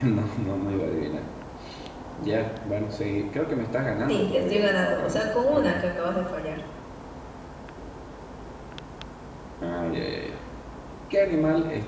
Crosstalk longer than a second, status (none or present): present